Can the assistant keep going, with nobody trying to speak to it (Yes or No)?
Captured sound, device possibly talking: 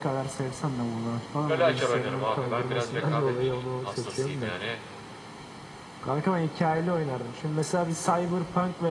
No